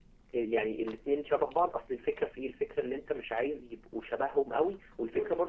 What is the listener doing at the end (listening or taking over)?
listening